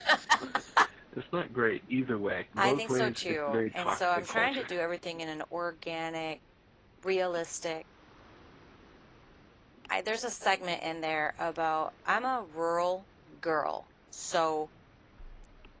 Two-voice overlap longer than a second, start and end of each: 2.6-4.7

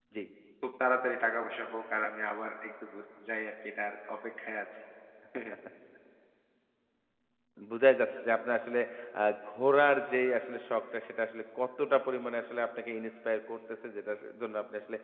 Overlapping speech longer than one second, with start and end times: none

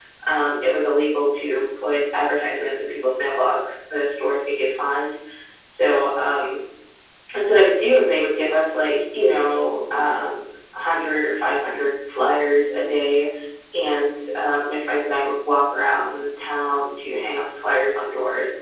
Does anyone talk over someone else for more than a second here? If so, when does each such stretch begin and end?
none

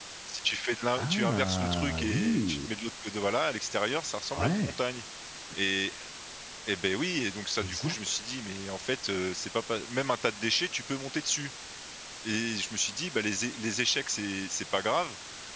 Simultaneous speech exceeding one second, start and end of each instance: 1.0-2.6

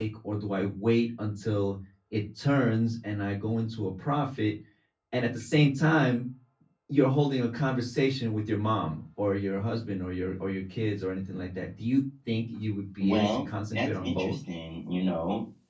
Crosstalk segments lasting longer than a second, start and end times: 13.0-14.3

